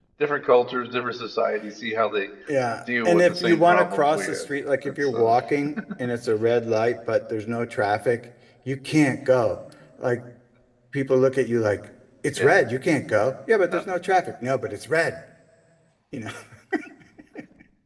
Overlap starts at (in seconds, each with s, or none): 3.0 s